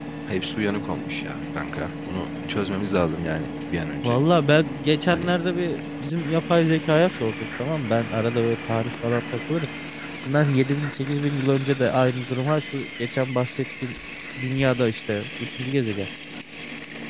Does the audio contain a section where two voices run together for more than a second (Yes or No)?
No